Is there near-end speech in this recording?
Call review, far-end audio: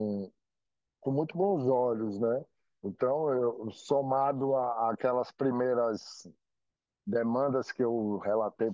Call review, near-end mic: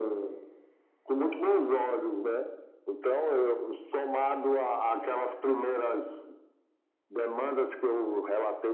No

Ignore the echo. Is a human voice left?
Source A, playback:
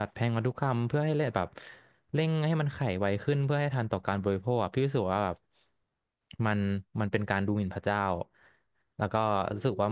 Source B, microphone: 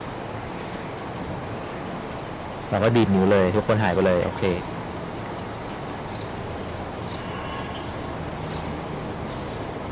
Yes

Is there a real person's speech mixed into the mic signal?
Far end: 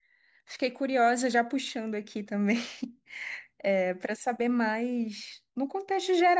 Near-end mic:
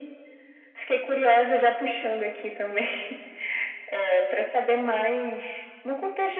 No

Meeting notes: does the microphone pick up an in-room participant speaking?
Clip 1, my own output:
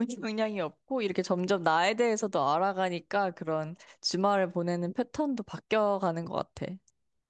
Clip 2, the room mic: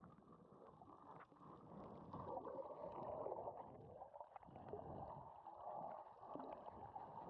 No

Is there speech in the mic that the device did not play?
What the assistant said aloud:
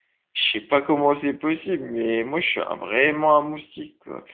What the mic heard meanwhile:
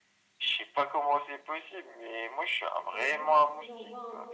Yes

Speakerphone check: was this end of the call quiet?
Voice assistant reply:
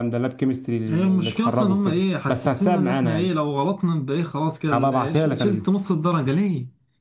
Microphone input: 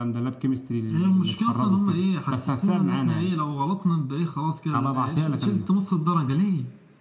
Yes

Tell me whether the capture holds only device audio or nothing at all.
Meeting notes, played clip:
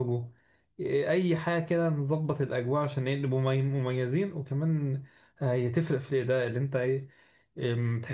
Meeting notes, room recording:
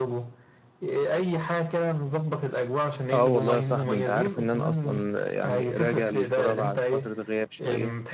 No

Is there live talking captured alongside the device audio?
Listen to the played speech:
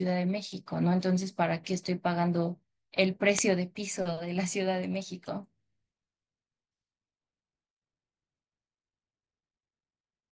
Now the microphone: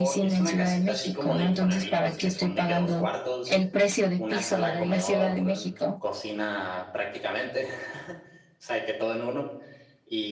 Yes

